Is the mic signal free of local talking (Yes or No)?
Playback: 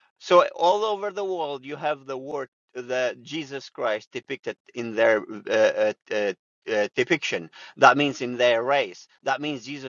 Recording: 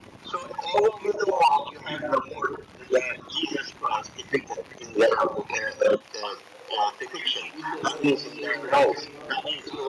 No